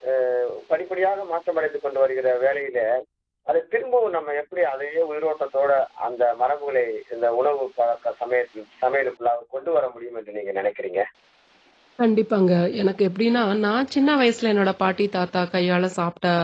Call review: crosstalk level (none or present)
none